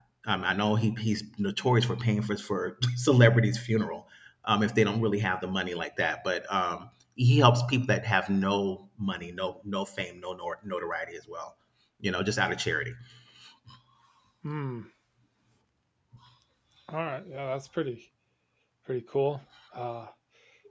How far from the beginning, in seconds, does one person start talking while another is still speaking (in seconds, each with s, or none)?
none